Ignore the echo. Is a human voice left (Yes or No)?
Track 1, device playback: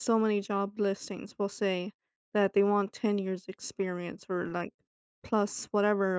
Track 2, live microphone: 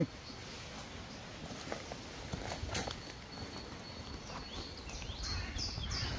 No